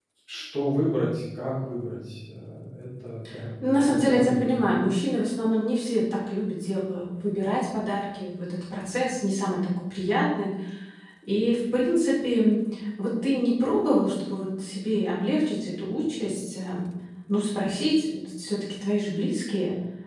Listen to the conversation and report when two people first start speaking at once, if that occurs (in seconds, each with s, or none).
3.6 s